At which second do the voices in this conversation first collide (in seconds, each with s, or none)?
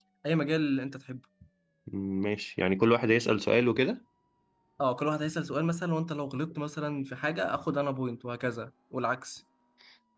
none